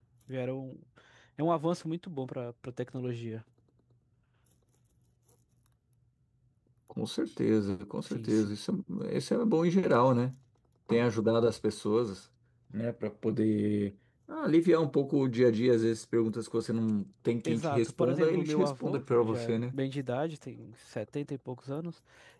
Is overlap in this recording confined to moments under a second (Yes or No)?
No